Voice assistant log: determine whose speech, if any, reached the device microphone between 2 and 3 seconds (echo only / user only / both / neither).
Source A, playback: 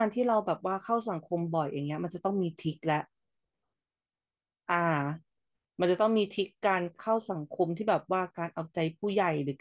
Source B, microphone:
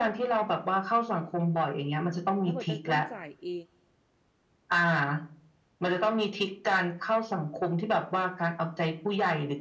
both